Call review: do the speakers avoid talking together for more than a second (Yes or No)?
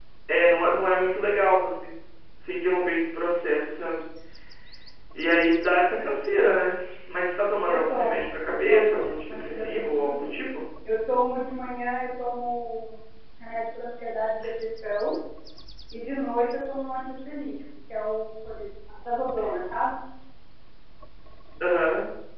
No